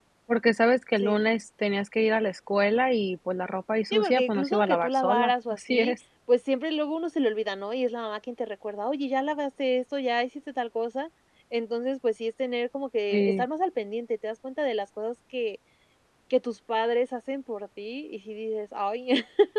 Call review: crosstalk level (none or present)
present